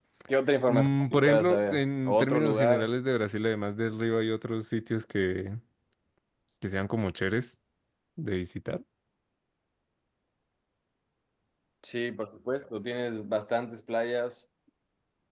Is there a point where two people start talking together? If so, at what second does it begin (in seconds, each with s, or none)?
0.7 s